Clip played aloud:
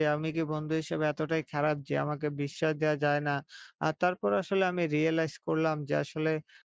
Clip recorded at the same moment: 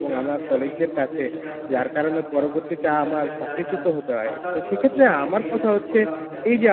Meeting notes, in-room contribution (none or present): present